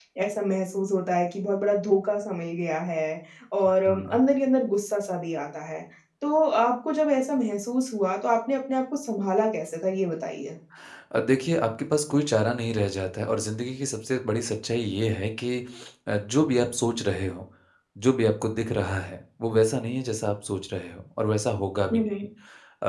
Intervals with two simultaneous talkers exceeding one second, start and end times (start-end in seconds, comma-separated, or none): none